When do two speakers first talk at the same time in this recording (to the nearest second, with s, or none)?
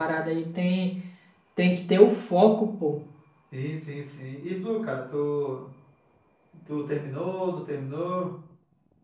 none